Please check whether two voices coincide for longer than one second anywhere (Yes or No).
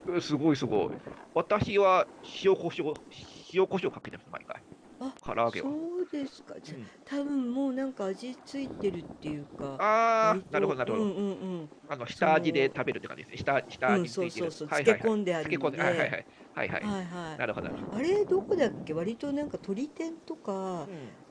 Yes